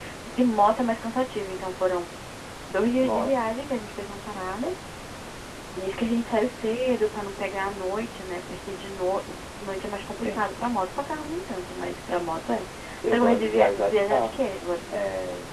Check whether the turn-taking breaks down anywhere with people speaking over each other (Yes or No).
Yes